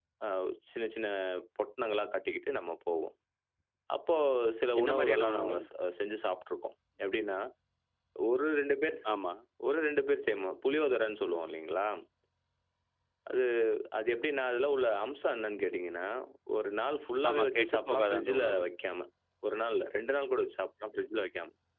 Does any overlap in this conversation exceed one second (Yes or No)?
Yes